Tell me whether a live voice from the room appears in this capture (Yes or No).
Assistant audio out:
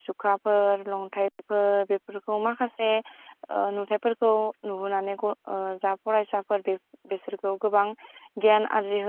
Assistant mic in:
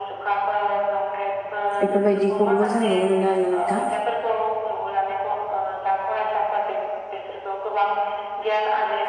Yes